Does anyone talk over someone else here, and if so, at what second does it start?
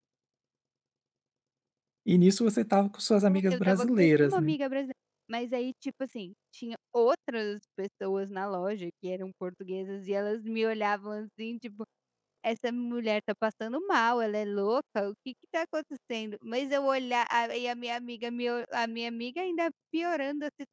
3 s

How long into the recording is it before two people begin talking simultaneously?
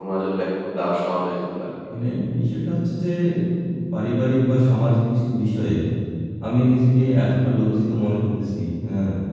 none

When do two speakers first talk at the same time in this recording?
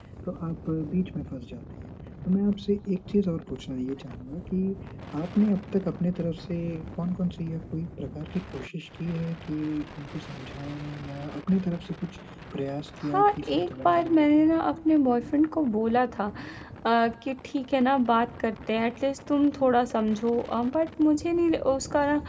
13 s

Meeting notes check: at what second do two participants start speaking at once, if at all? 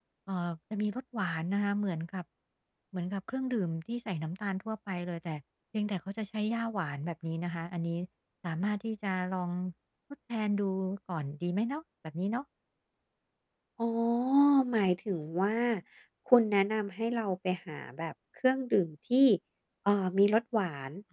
none

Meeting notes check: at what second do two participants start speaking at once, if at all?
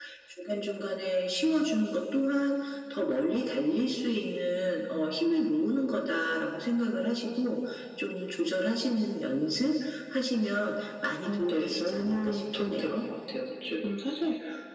11 s

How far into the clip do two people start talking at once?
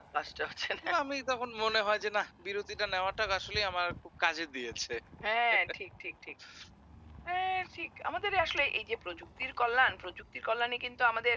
none

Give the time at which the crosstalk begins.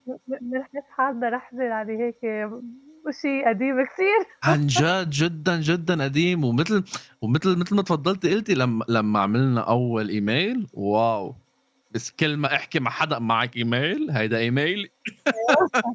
none

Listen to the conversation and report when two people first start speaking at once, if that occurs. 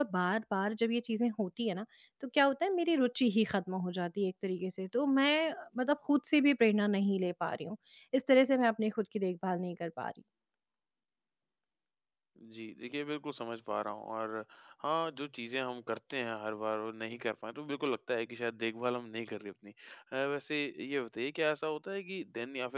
none

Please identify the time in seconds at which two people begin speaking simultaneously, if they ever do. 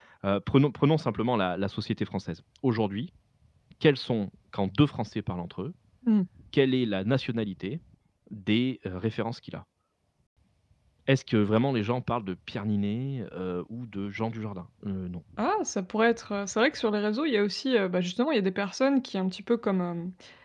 none

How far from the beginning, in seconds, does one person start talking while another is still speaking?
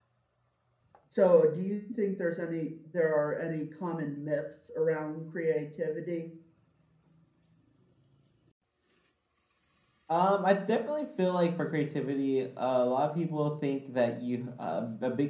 none

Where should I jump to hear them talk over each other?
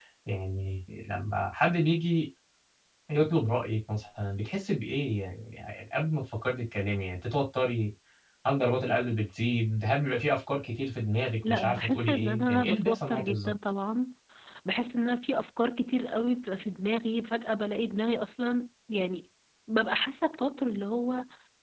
11 s

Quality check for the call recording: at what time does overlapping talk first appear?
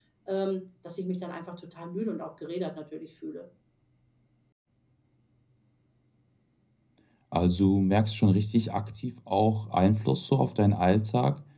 none

